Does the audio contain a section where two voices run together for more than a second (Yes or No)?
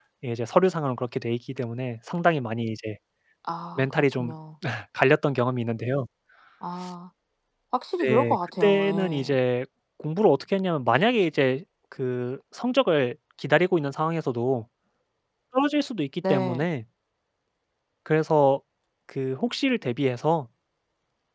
Yes